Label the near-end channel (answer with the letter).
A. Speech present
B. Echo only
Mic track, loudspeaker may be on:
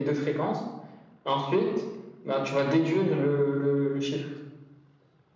B